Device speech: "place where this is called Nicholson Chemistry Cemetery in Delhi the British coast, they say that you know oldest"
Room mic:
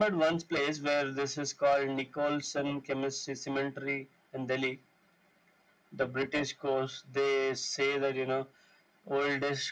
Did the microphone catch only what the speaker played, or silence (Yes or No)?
Yes